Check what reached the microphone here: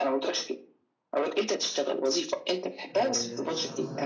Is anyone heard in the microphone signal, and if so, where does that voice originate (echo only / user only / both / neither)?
both